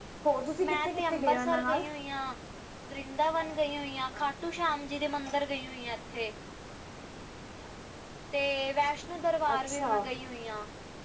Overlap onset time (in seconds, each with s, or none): 0.6 s